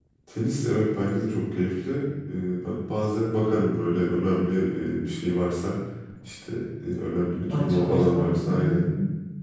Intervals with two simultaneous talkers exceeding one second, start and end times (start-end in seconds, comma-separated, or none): 7.5-8.9